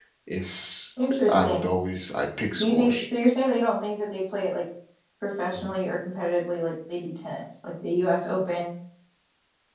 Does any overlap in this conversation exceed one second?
No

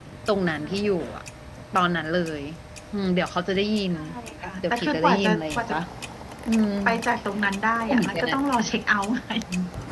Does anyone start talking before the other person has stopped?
Yes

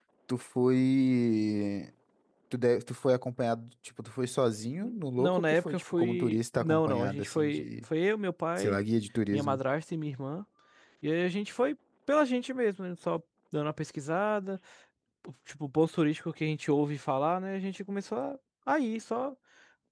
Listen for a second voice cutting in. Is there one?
Yes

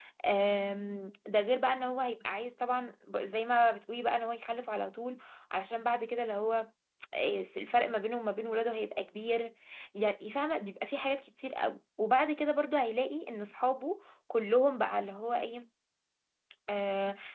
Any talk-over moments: No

